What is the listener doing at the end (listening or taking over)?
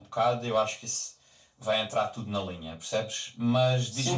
taking over